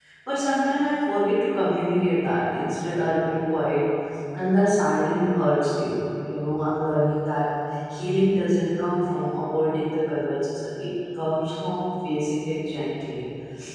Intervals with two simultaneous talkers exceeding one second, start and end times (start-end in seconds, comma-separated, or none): none